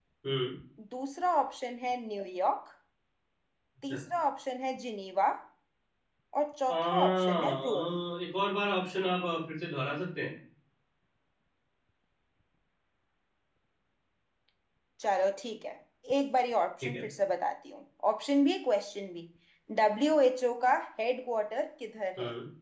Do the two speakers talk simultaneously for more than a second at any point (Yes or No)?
Yes